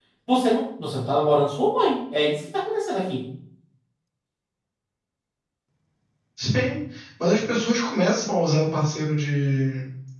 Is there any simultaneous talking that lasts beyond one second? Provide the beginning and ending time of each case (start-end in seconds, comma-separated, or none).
none